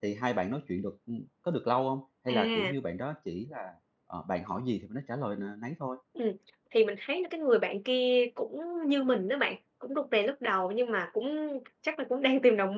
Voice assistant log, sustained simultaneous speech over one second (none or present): none